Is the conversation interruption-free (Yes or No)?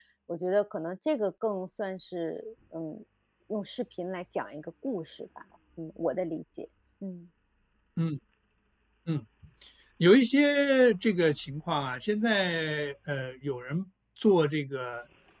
Yes